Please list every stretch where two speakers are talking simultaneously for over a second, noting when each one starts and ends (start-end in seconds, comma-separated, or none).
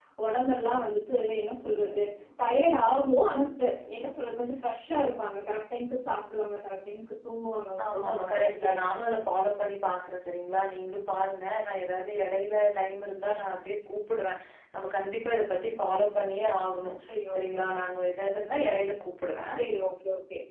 7.8-9.1